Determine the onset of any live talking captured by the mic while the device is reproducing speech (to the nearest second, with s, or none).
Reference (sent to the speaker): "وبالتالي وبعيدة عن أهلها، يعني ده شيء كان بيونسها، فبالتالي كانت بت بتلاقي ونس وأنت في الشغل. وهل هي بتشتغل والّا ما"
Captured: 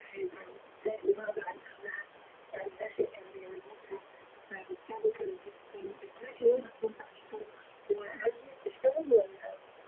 none